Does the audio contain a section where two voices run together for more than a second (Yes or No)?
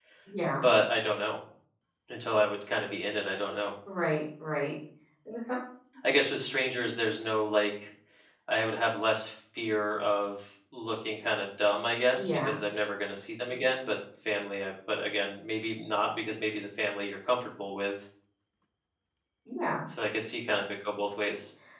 No